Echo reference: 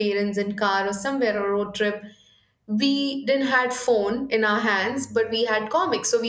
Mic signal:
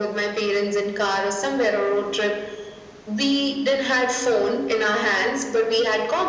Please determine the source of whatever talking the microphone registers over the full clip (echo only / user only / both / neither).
echo only